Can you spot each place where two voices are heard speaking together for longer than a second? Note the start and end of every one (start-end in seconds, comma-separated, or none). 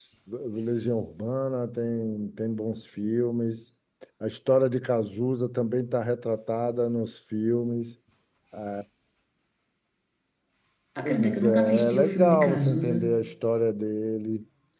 11.0-13.0